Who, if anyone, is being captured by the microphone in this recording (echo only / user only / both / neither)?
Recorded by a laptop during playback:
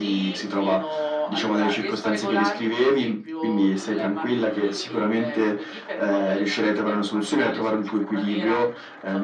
echo only